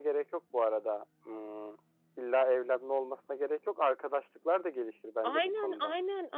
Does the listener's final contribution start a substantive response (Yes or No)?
Yes